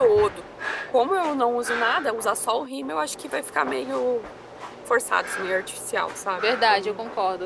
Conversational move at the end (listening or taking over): taking over